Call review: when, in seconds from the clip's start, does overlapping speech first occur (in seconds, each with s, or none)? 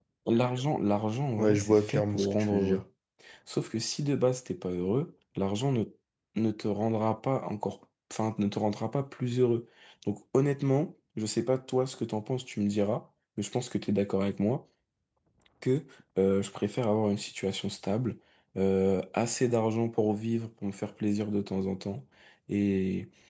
1.4 s